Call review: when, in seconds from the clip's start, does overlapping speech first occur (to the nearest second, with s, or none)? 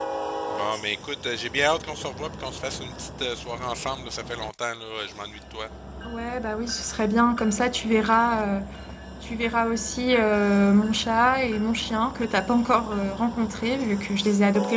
none